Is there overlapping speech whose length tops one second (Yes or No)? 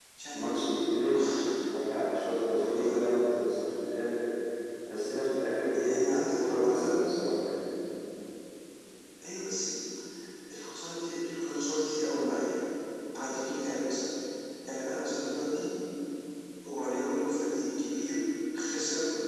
Yes